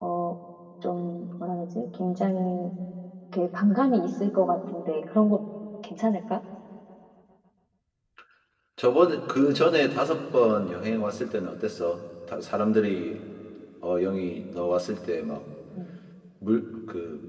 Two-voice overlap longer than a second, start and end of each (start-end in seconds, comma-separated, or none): none